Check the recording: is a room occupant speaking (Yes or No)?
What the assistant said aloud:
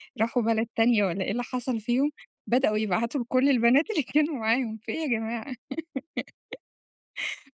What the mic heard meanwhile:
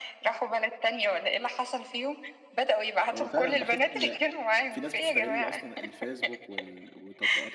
Yes